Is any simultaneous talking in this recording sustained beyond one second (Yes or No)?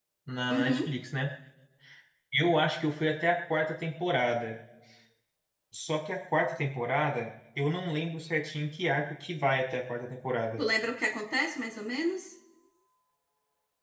No